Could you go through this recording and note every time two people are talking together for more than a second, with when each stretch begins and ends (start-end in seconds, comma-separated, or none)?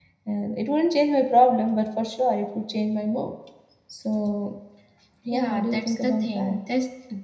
5.3-6.6